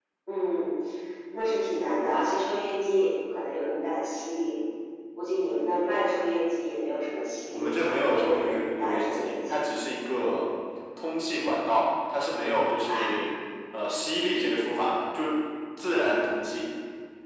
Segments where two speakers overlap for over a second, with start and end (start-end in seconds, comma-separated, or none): 7.5-9.6